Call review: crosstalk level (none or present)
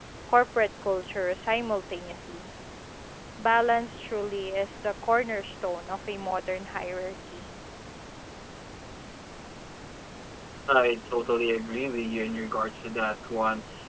none